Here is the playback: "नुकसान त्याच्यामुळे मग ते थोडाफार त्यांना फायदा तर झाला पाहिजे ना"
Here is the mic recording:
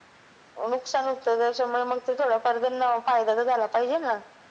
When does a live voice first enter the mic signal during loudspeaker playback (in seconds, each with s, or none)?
none